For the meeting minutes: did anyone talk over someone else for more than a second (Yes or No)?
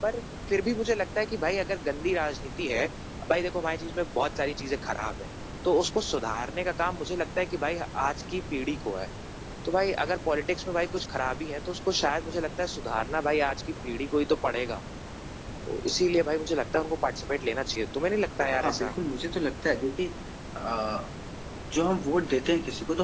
No